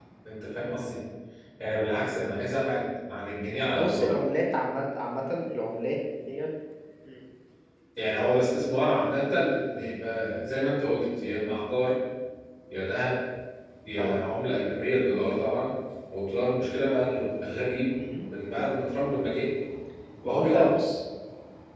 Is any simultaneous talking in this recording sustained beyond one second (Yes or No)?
No